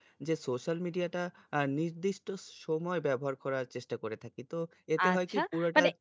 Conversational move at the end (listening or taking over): taking over